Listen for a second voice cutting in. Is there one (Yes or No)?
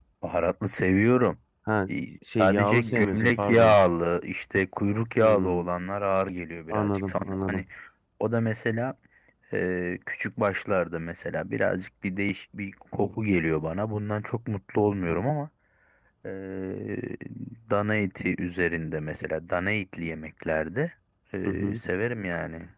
Yes